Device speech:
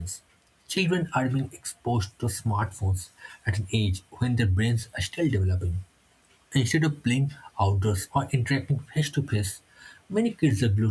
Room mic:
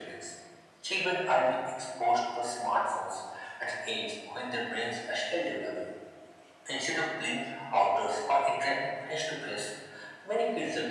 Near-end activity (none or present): none